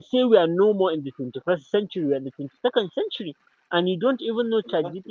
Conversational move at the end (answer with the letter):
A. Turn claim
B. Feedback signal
B